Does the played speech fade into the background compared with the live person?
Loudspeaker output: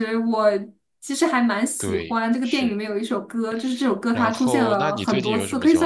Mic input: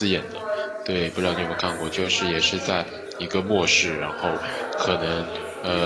Yes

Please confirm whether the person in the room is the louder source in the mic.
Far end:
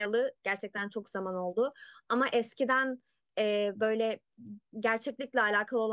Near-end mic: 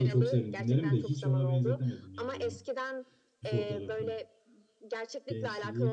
Yes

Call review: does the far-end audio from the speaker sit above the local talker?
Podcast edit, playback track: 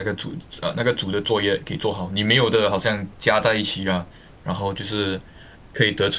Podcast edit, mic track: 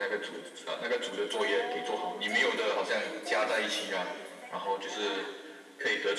Yes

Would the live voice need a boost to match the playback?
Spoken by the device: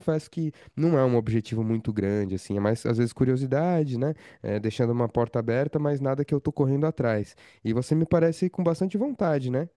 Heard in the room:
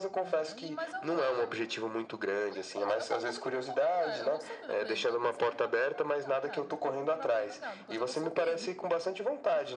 Yes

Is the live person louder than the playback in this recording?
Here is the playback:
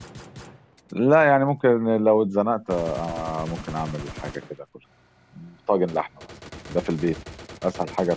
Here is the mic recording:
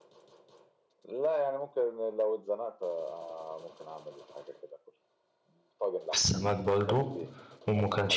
Yes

